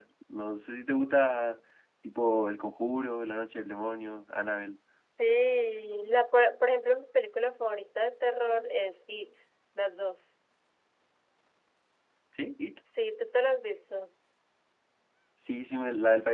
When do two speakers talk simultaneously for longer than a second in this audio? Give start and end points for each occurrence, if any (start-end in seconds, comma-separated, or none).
none